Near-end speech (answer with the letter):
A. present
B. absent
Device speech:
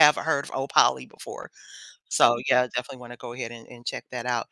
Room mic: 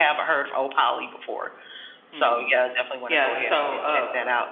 A